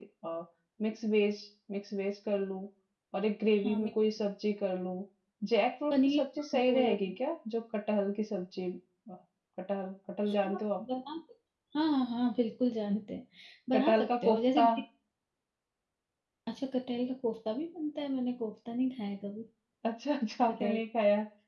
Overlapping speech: Yes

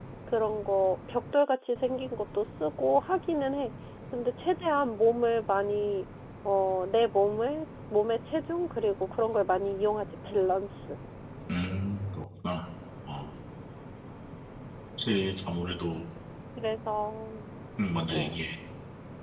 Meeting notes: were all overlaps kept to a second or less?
Yes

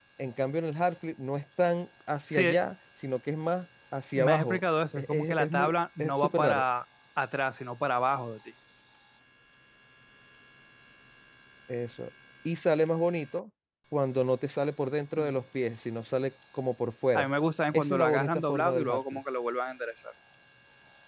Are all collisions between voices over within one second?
No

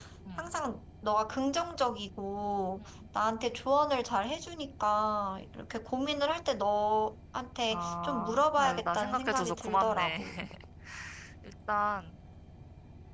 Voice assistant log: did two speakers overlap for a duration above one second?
Yes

